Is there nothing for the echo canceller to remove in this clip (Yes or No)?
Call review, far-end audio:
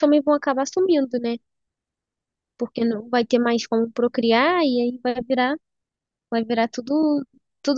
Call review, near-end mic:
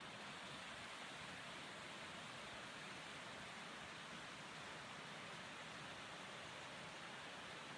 Yes